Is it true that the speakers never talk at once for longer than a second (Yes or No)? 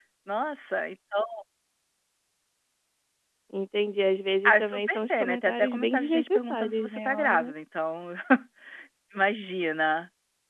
No